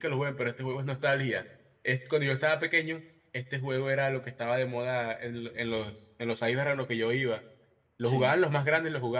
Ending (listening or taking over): listening